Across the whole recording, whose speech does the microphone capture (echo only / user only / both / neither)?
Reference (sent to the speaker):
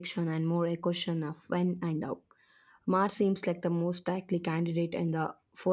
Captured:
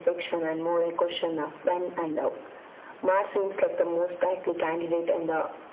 echo only